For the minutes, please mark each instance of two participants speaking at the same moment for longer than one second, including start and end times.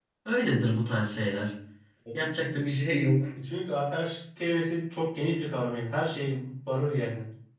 none

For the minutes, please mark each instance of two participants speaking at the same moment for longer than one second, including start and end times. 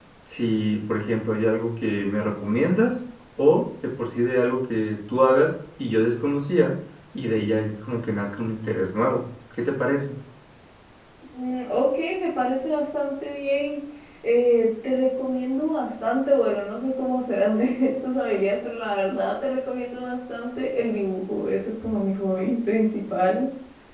none

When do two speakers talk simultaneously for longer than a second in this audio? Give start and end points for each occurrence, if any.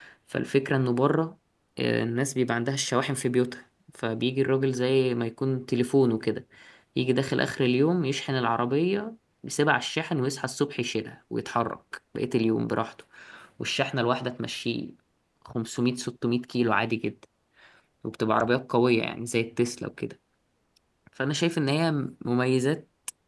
none

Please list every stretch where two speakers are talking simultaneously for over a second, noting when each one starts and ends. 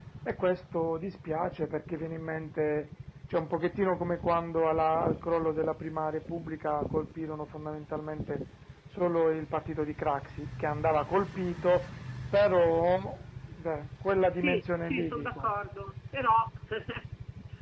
14.3-15.5

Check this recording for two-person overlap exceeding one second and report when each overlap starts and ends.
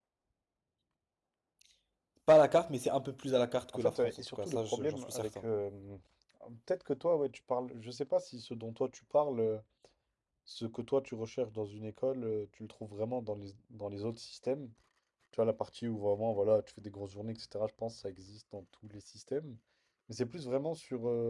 3.7-5.5

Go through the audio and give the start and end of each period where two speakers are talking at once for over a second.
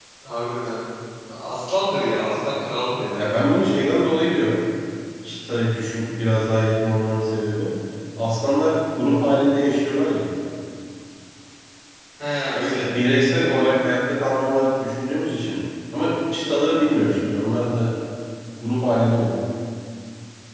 none

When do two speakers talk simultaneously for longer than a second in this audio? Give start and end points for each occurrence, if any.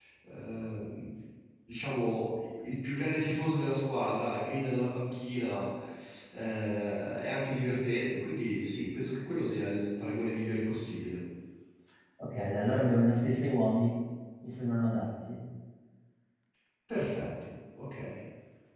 none

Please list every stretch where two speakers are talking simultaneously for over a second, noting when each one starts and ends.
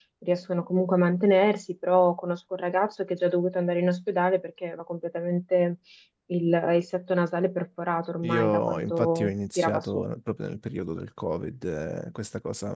8.2-10.0

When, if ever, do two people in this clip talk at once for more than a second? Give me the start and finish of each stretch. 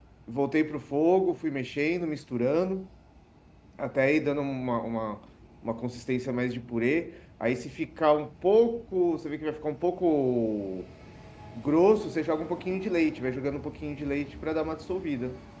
none

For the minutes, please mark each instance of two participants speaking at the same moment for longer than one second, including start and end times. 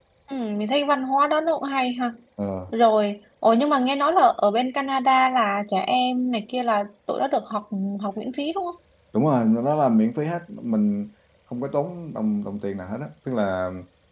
none

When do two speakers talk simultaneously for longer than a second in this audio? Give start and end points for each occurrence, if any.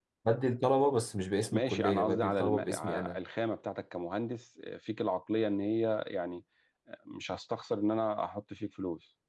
1.5-3.2

